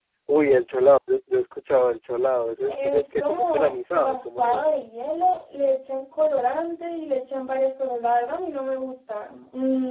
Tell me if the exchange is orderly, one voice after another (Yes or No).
No